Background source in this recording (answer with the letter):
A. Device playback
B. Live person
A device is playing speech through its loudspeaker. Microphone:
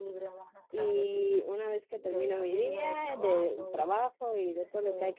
A